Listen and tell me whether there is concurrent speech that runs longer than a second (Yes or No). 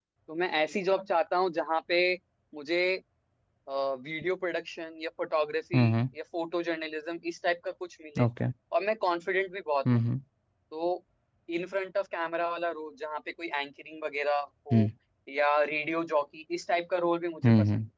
No